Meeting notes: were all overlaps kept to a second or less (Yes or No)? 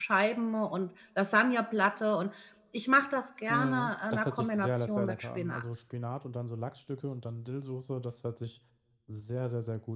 No